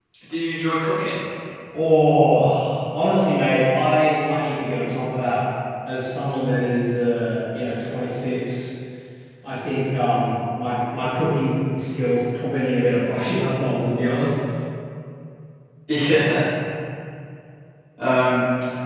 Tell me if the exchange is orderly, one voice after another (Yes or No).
Yes